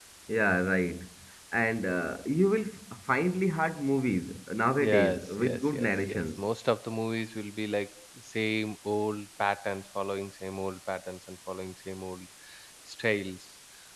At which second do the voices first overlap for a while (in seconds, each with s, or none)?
4.8 s